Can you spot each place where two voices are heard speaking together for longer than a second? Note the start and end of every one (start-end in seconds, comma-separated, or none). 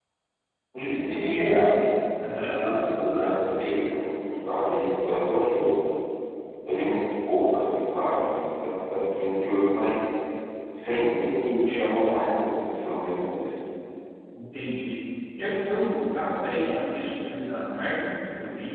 none